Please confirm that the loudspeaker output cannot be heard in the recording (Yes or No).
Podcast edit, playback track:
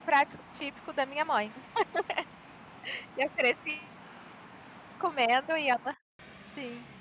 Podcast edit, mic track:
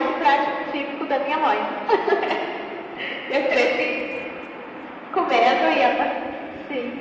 No